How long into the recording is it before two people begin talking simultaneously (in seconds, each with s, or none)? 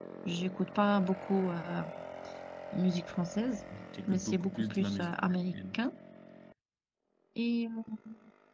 4.1 s